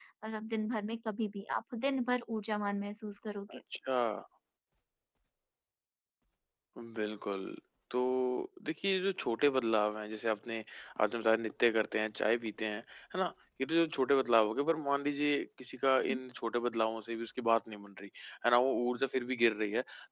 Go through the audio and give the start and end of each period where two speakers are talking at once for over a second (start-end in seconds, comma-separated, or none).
none